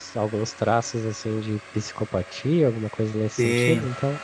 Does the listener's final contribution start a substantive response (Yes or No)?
Yes